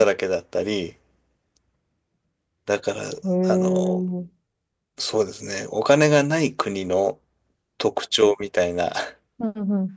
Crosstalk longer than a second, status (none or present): none